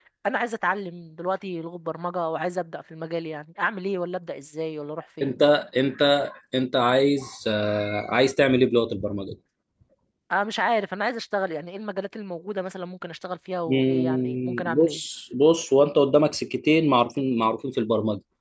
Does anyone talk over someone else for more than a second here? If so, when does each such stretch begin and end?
13.7-15.0

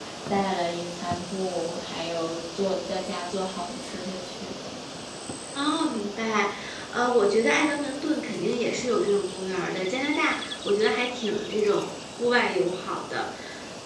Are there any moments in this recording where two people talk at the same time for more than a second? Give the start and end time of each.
none

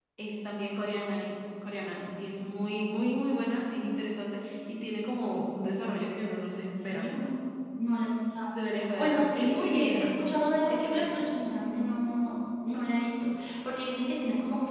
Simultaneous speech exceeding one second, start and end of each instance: 9.0-10.2

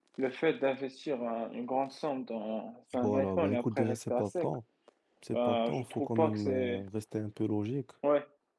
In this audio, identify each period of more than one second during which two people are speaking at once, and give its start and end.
3.0-4.5, 5.3-6.8

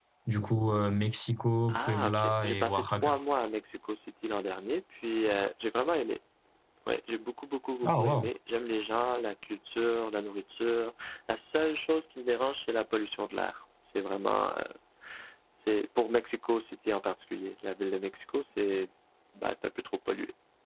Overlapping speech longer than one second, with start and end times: 1.7-3.1

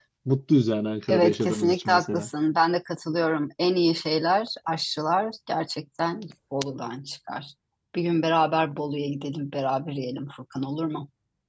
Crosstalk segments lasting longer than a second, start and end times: 1.1-2.3

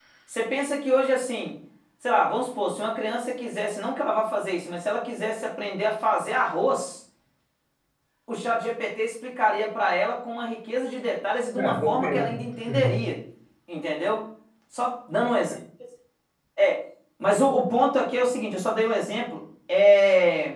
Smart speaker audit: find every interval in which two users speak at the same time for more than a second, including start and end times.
11.6-13.1

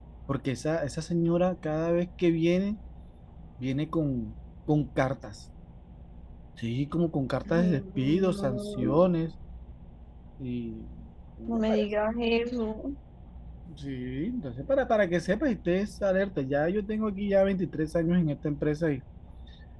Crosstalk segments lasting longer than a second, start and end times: 7.5-9.1

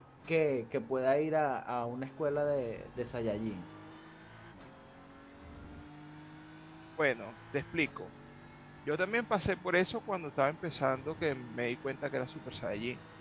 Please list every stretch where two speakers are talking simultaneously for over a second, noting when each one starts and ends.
none

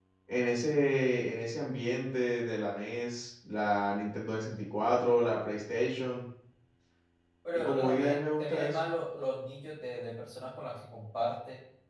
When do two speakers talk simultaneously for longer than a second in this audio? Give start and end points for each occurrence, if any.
7.5-8.9

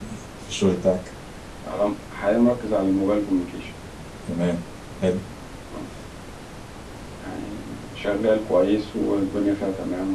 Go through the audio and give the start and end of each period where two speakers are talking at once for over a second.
none

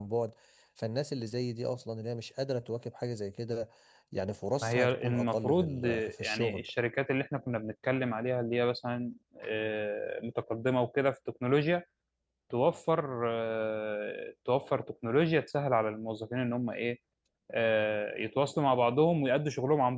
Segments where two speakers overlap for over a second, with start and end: 4.6-6.6

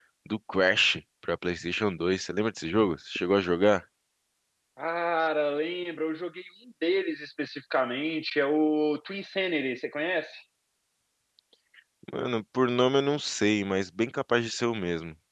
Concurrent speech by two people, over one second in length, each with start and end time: none

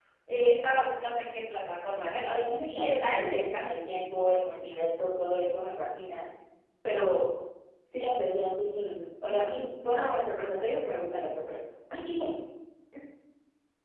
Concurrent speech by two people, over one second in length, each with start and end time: 2.2-3.6

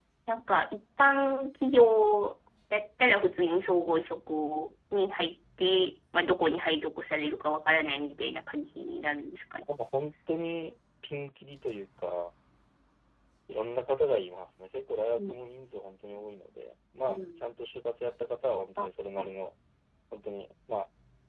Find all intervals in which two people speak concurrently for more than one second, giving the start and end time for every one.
none

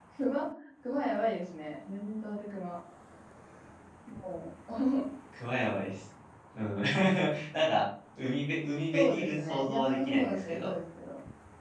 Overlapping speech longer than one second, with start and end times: 8.9-10.8

